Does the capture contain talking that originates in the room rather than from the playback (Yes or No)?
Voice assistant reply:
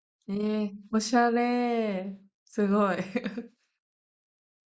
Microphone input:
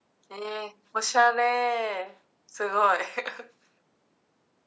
No